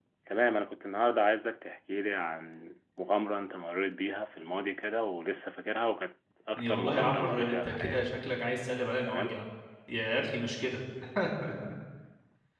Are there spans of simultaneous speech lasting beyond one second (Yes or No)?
Yes